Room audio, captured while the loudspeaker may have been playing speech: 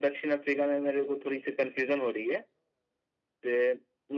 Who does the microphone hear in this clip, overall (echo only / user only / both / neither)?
echo only